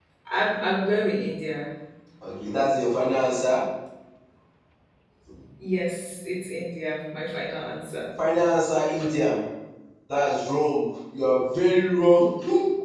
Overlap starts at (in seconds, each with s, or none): none